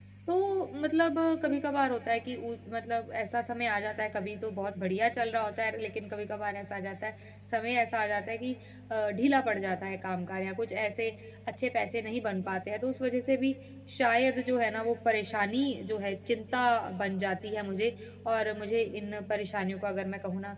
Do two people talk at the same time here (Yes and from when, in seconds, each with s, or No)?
No